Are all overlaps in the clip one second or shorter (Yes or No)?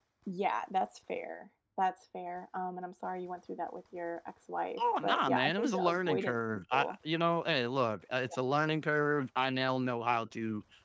No